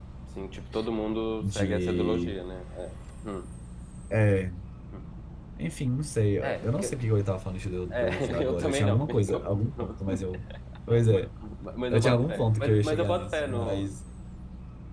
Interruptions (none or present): present